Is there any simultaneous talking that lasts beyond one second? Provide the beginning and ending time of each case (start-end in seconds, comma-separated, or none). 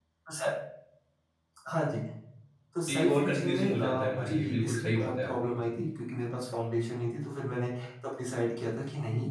2.9-5.3